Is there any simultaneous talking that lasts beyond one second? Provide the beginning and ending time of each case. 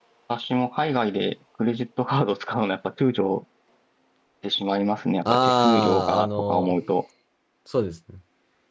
5.2-6.8

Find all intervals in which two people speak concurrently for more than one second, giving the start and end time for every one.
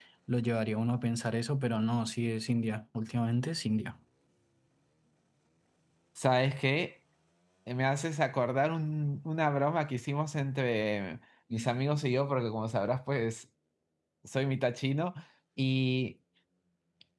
none

